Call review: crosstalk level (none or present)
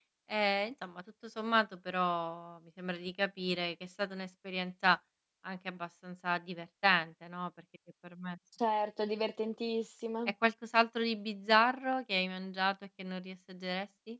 none